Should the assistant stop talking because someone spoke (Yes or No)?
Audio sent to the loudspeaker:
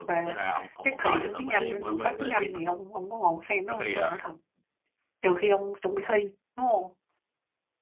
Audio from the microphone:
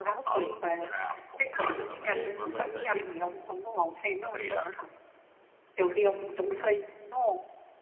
No